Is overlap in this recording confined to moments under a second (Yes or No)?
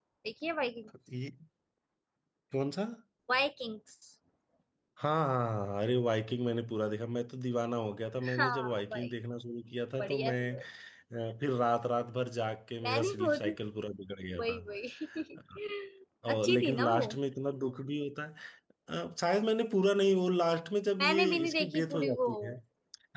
No